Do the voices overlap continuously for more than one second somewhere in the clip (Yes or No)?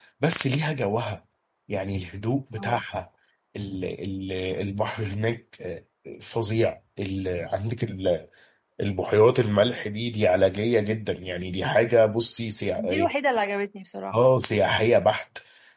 No